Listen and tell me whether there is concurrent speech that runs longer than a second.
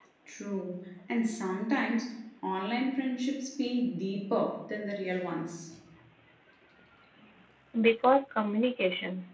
No

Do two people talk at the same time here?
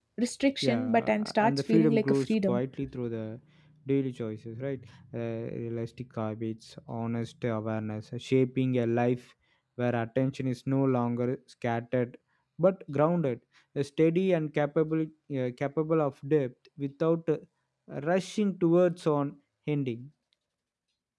Yes, from 0.7 s

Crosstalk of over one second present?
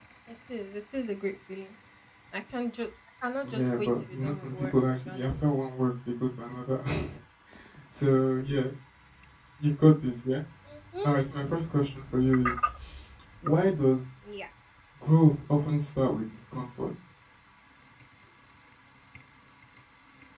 Yes, from 3.4 s

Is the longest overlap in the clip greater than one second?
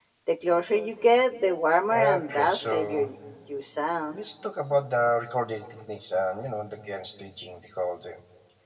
Yes, from 1.9 s

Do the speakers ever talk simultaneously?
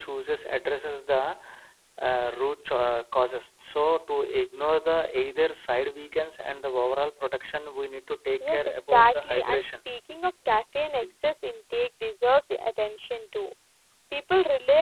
Yes, from 8.4 s

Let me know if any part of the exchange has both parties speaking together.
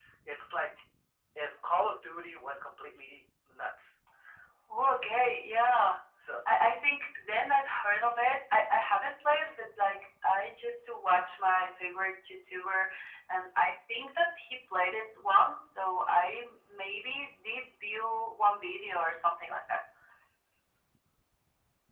No

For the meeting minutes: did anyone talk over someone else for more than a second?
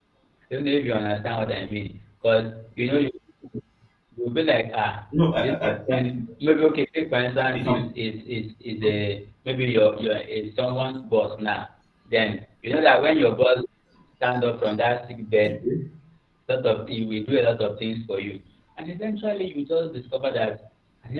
No

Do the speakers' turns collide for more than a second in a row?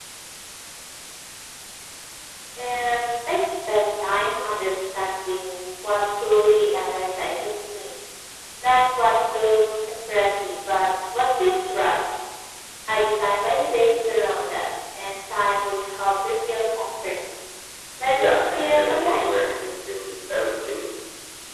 Yes, from 18.0 s

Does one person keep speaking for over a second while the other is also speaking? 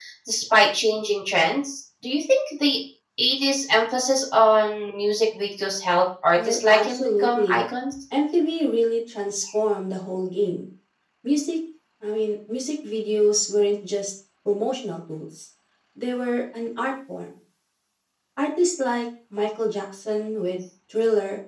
Yes, from 6.3 s

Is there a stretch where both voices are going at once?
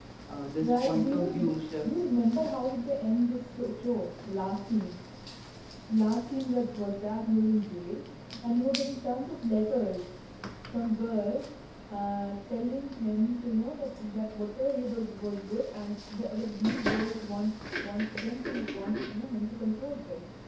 Yes, from 0.7 s

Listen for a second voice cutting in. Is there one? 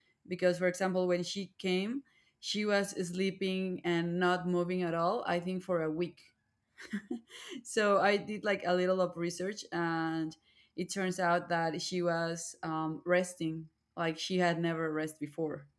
No

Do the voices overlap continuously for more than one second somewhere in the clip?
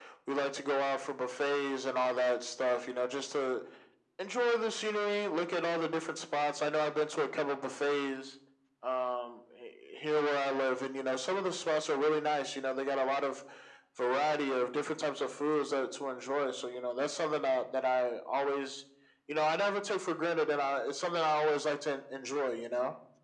No

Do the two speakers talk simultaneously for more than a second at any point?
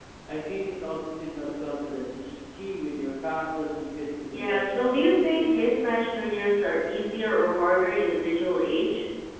Yes, from 4.3 s

